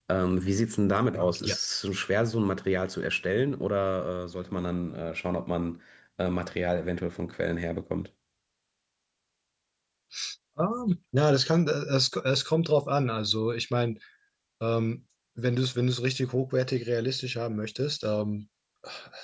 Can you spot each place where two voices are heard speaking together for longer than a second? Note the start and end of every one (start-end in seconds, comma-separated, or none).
none